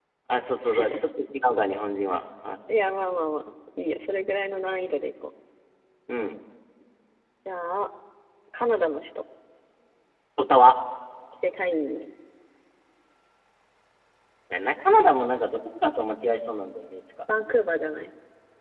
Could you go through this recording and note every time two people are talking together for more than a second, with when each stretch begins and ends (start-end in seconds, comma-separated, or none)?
none